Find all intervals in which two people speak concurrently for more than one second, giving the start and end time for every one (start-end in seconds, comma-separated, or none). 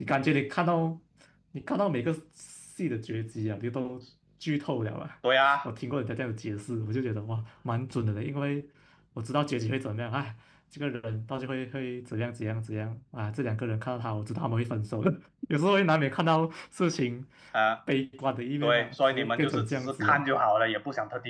18.6-20.3